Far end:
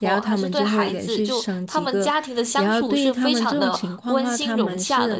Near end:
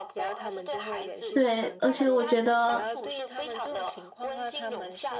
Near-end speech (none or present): present